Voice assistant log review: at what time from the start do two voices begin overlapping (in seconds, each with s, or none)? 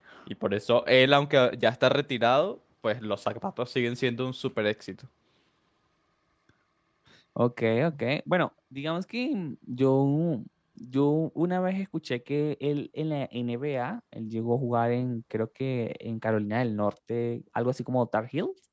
none